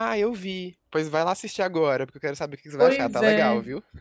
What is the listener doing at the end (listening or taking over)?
taking over